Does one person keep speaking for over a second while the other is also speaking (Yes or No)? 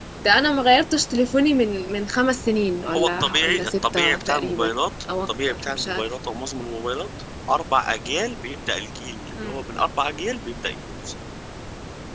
Yes